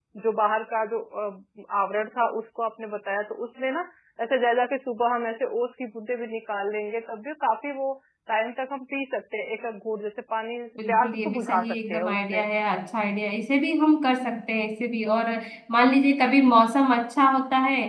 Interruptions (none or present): present